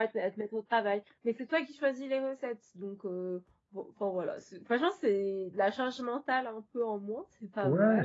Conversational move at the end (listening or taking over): taking over